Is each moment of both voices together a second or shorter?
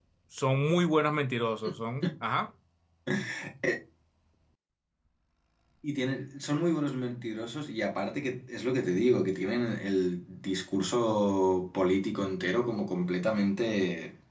Yes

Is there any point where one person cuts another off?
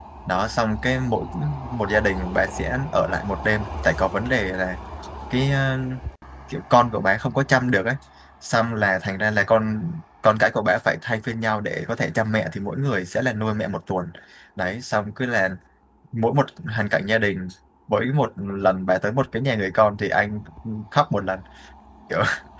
No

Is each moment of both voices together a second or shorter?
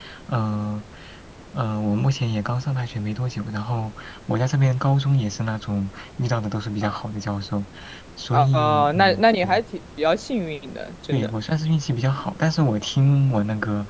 No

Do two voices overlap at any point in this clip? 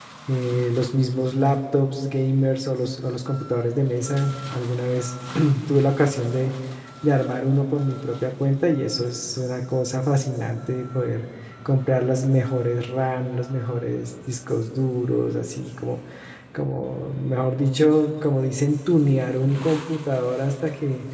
No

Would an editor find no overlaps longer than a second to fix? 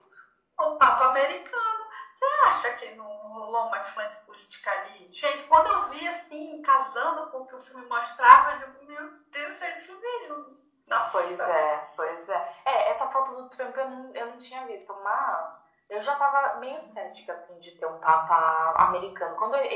Yes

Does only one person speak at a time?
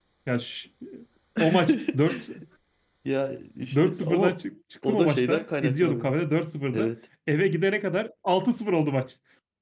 No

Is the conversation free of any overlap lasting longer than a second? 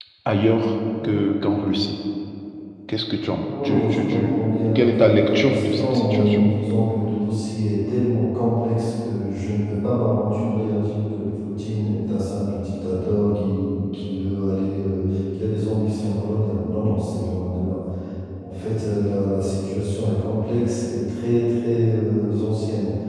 No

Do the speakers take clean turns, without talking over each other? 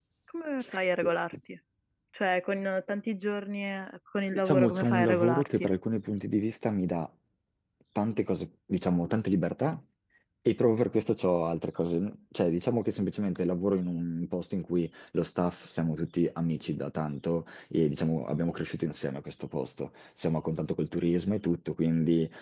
No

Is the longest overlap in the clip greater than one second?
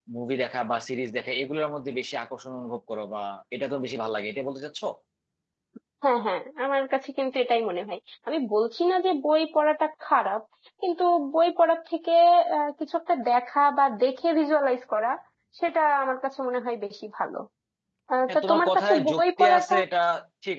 Yes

